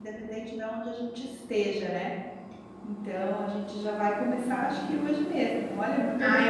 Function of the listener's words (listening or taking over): taking over